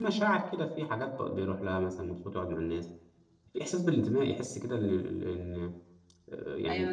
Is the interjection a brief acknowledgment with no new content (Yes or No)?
No